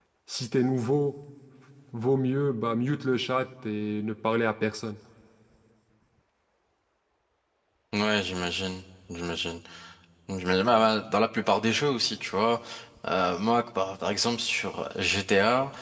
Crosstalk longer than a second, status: none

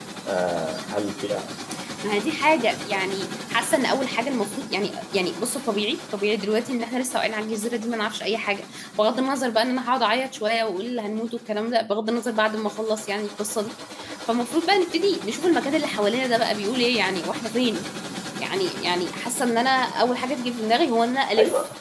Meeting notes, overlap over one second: none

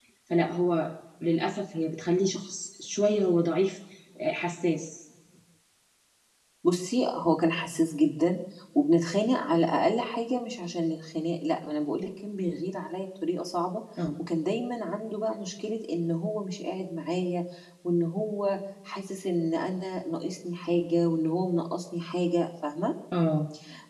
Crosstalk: none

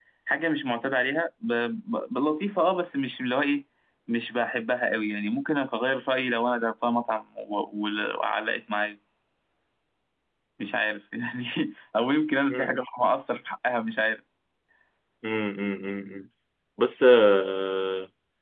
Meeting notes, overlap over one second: none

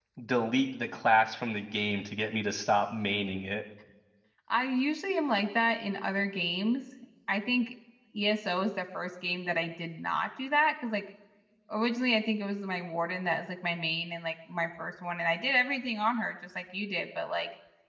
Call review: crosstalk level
none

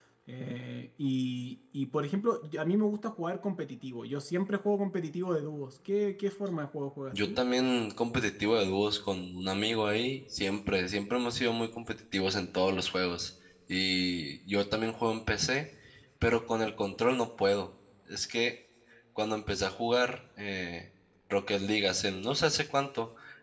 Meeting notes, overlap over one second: none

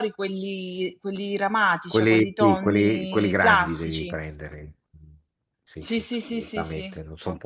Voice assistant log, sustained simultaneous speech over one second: present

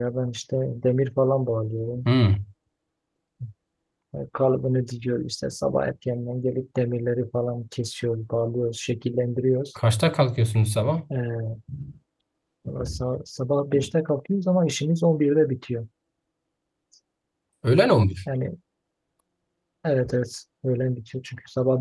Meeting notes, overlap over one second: none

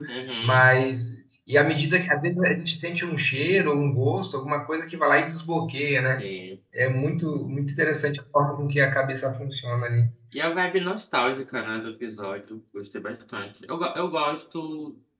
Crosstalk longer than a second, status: none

